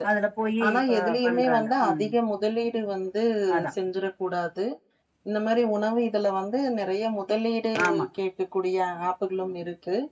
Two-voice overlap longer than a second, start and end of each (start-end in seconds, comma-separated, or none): 0.6-2.1